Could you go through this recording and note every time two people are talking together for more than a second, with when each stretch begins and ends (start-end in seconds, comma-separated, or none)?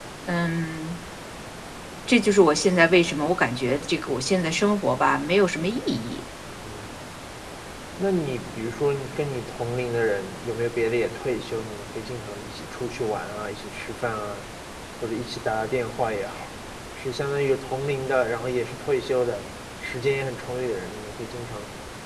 none